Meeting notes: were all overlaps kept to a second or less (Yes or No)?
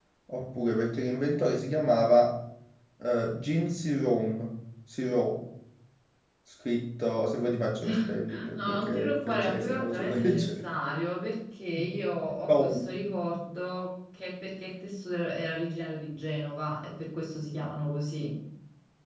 No